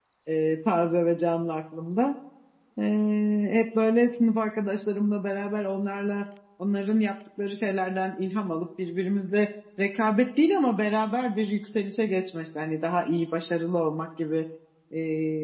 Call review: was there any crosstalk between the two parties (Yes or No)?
No